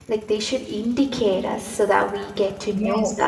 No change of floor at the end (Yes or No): No